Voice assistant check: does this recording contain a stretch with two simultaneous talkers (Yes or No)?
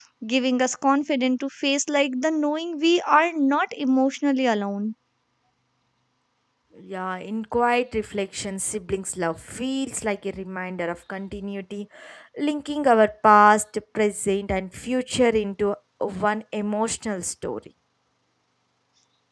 No